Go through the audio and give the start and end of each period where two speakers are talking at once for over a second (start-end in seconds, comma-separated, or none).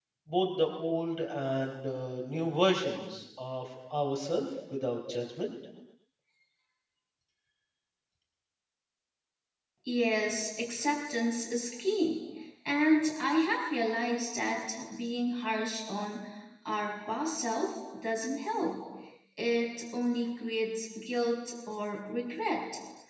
none